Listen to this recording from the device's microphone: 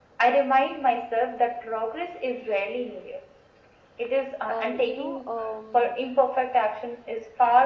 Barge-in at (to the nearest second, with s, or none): 4 s